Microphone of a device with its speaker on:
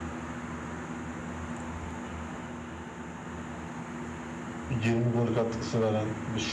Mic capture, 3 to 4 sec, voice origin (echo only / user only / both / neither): neither